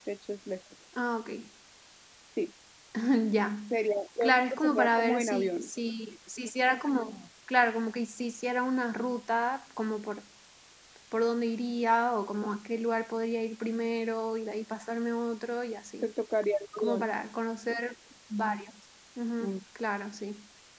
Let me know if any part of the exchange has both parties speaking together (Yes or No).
Yes